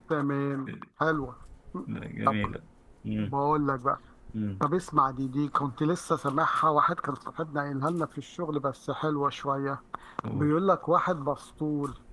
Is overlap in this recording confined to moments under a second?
Yes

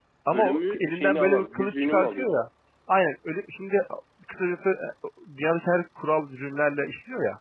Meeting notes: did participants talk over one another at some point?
Yes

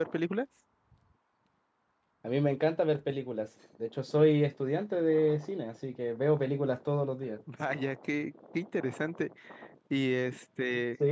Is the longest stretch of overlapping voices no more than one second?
Yes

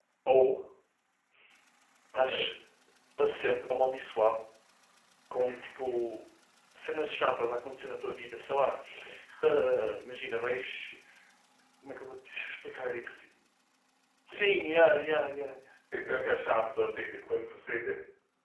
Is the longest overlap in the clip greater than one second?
No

